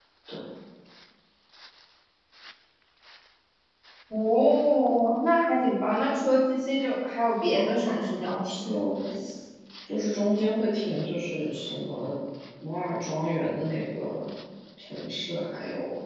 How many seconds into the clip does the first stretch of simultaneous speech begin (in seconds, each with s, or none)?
7.5 s